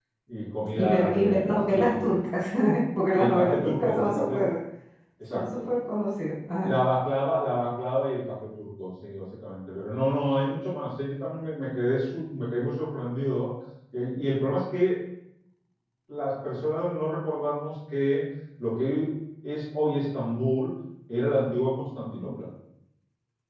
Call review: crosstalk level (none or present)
present